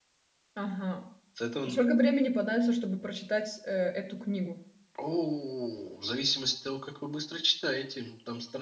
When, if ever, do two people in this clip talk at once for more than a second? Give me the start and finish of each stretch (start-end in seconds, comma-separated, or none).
none